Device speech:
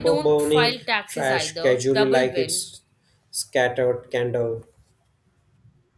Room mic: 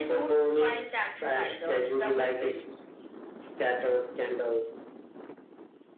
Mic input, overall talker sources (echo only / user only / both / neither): echo only